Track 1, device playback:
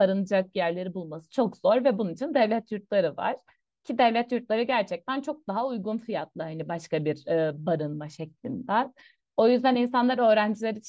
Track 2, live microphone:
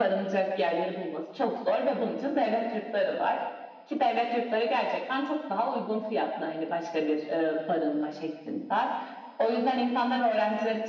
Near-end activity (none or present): none